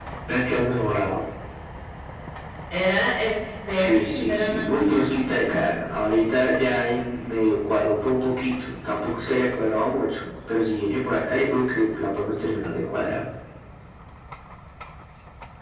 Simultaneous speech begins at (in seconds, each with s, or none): 3.7 s